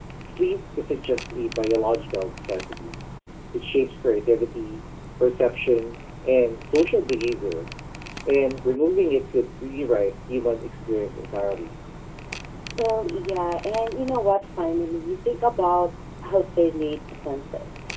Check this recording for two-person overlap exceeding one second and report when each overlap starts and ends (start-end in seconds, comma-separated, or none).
none